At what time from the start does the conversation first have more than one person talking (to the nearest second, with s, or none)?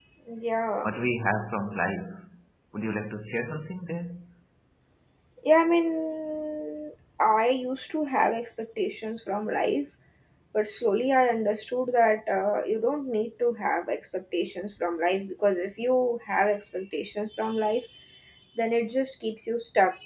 none